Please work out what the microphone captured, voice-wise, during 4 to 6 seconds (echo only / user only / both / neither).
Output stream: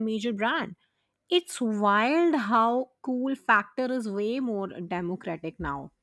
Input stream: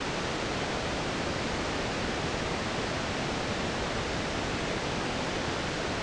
neither